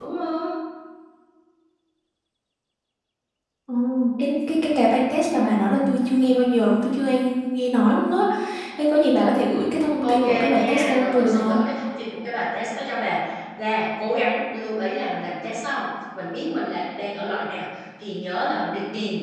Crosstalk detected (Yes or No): Yes